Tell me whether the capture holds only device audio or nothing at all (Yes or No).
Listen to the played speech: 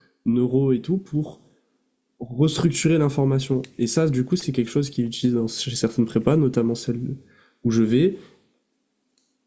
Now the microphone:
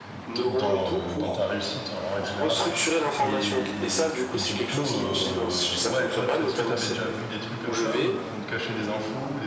No